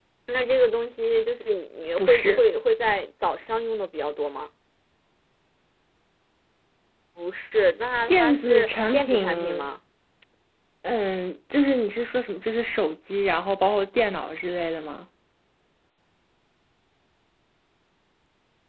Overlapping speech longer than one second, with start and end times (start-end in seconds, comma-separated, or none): 8.1-9.7